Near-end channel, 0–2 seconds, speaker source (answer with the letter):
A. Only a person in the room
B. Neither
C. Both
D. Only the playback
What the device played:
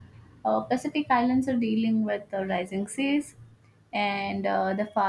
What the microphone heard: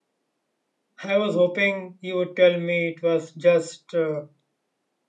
A